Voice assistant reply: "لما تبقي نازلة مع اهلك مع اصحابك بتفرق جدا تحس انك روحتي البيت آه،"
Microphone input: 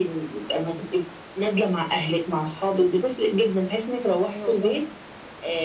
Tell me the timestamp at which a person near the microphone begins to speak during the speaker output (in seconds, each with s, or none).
4.3 s